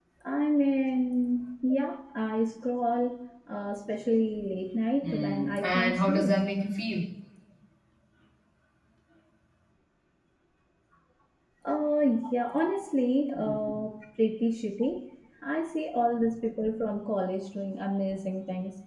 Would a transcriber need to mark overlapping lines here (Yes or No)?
Yes